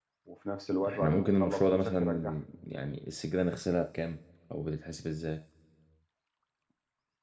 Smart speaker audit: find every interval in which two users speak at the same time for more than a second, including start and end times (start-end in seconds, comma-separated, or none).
0.9-2.3